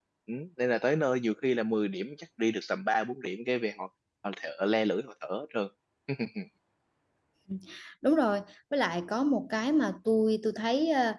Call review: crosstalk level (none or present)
none